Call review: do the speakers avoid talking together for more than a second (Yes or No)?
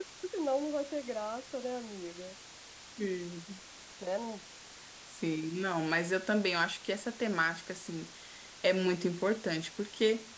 Yes